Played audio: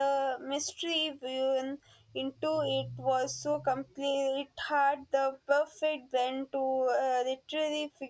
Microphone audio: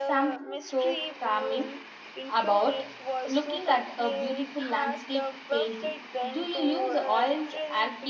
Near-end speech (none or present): present